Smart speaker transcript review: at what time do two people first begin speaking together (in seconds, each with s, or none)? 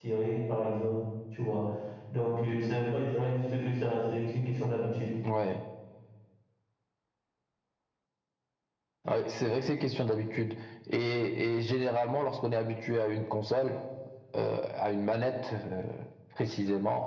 none